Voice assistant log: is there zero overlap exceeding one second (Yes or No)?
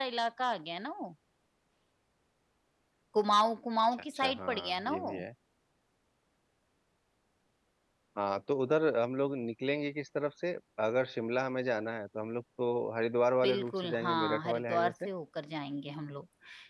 No